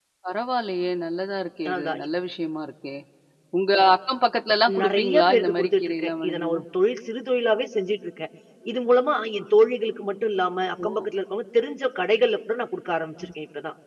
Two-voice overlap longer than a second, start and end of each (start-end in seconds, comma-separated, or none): 4.8-6.5